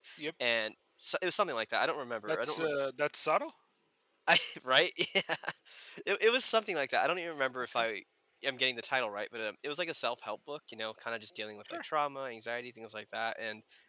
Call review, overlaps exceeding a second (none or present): none